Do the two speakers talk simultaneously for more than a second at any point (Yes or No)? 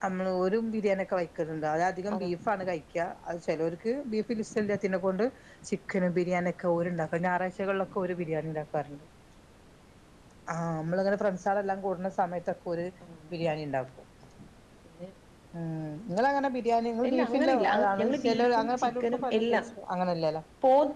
Yes